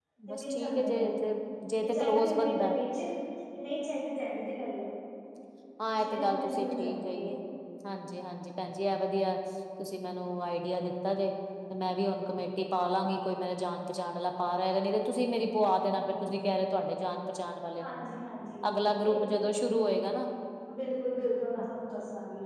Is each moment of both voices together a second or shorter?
No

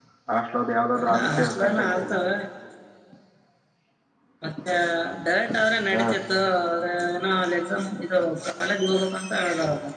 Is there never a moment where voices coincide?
No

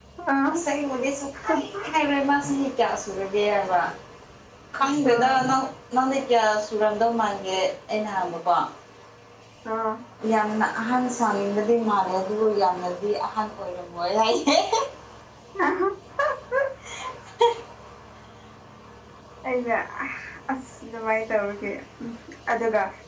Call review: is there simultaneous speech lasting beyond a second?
No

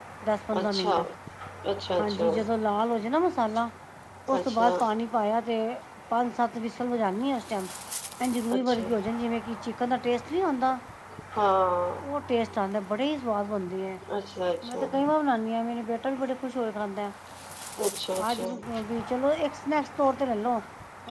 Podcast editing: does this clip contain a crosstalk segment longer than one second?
No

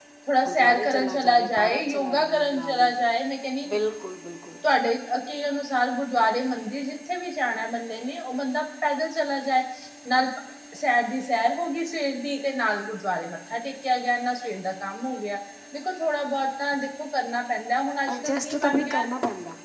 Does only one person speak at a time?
No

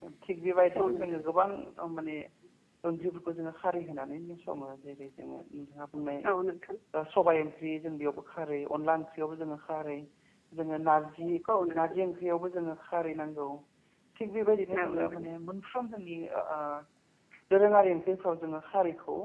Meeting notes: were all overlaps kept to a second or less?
Yes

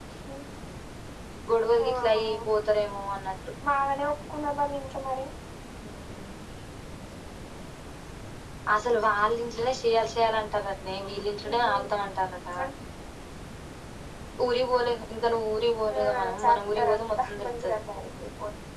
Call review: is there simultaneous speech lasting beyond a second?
Yes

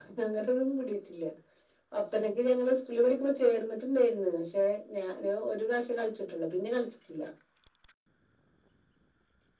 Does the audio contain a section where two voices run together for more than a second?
No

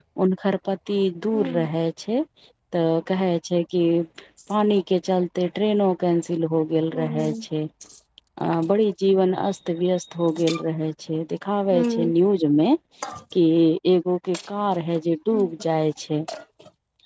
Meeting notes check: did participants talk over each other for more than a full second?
No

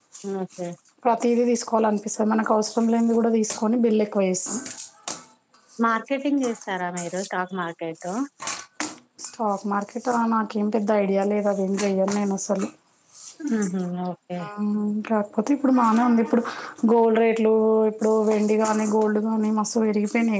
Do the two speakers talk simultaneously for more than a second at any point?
No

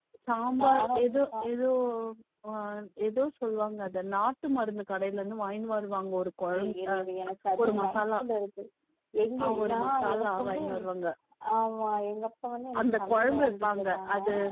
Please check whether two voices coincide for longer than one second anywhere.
Yes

